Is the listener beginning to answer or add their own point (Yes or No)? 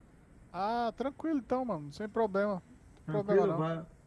Yes